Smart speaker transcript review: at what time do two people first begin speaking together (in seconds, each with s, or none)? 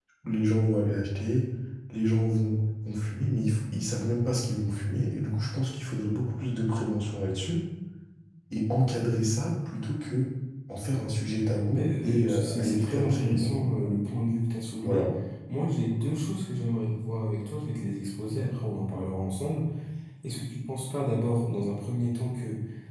11.7 s